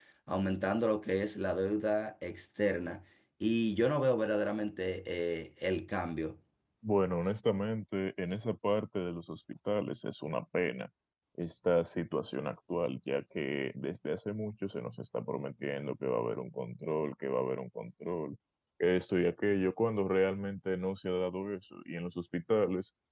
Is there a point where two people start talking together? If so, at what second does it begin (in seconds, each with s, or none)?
none